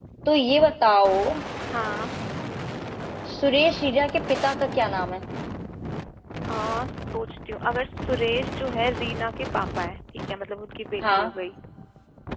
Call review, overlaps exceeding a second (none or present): none